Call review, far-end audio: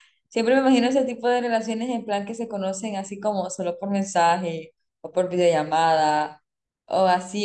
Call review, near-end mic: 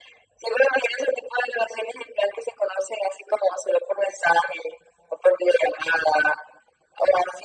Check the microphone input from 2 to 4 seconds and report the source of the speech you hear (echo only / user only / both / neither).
echo only